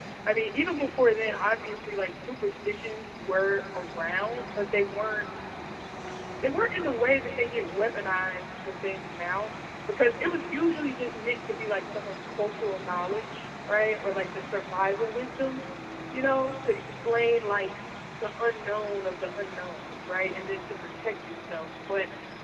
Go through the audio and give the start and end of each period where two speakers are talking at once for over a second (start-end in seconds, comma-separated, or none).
none